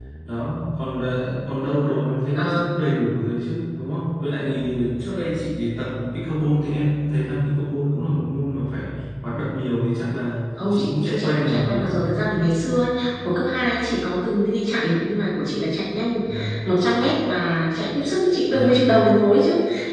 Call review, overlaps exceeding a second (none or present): present